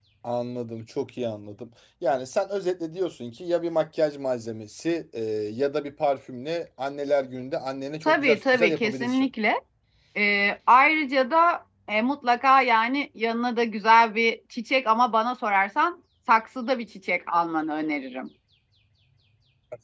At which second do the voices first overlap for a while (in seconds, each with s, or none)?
8.0 s